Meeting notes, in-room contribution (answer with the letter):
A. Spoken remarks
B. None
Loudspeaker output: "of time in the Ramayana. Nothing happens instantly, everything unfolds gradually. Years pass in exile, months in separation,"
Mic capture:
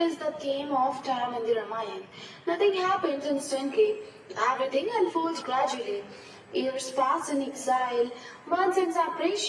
B